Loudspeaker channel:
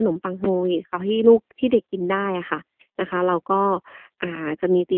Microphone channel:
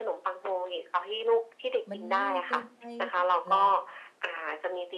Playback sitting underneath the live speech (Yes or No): No